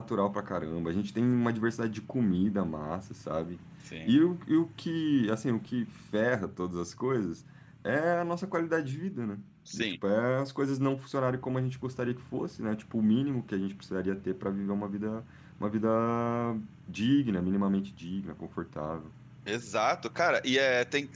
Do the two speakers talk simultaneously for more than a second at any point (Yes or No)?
No